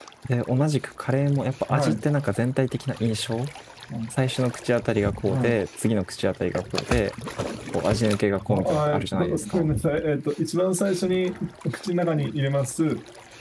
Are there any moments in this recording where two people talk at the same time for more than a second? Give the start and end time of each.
8.5-9.7

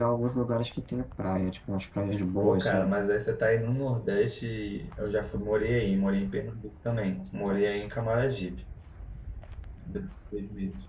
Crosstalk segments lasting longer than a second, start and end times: none

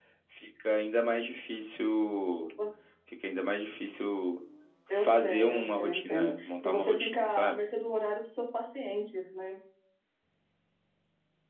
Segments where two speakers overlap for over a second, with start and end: 4.9-7.6

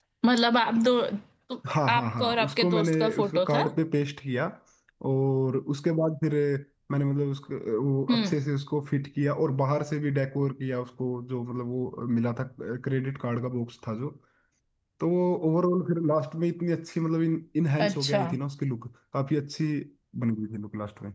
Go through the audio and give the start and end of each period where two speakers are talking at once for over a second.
1.9-3.6

